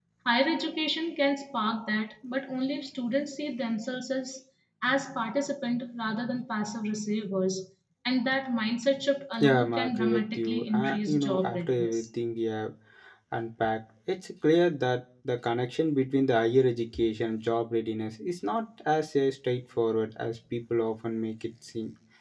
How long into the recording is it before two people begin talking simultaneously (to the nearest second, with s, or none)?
9 s